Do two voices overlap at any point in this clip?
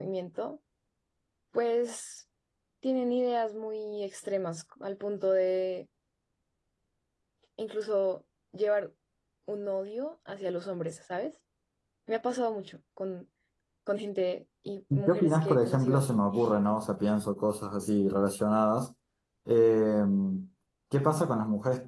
Yes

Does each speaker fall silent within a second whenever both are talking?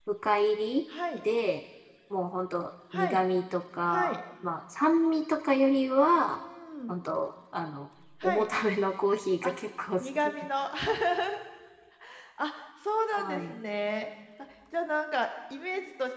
Yes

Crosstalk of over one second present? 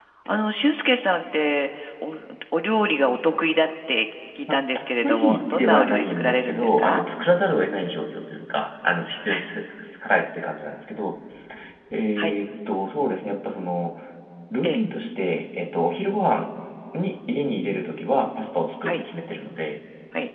Yes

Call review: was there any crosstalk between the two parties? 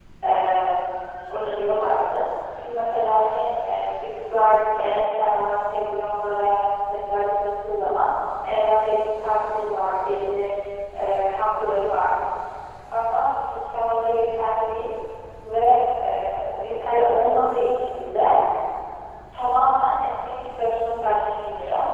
No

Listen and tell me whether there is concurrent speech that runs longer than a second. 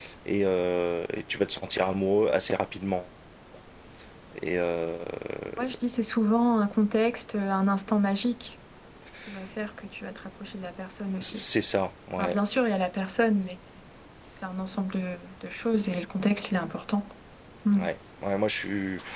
No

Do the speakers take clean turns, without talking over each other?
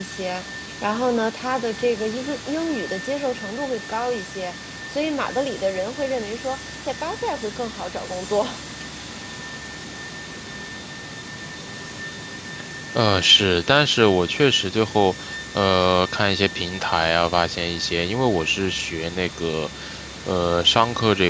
Yes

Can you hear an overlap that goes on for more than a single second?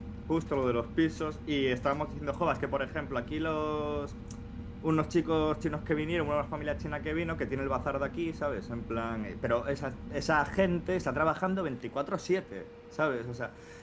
No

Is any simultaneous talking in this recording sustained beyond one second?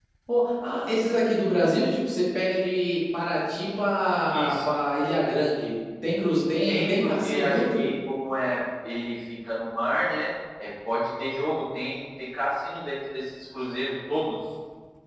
Yes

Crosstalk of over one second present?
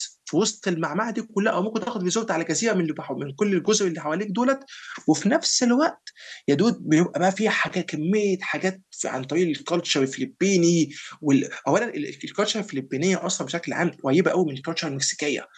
No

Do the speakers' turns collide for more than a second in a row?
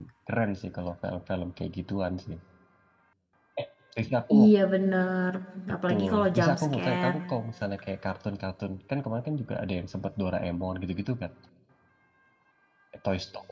Yes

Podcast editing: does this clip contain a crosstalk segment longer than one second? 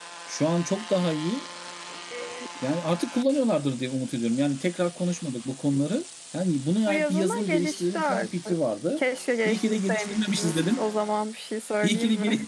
Yes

